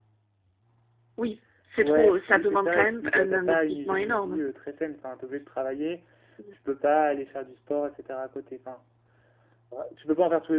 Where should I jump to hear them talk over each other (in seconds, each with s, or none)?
1.8 s